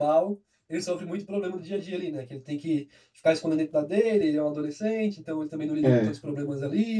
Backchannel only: Yes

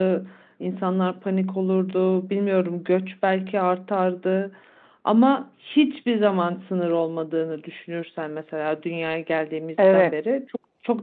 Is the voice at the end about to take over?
No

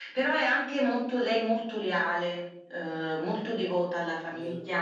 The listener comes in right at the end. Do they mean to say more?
Yes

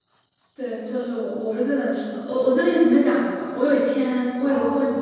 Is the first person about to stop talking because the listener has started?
No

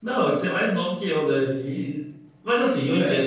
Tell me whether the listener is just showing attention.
Yes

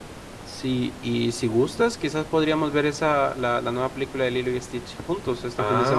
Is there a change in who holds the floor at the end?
Yes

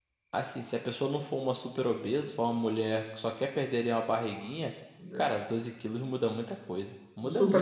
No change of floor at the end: No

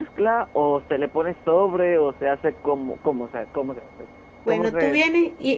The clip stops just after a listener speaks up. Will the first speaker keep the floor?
No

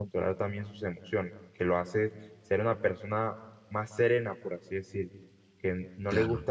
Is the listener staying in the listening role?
Yes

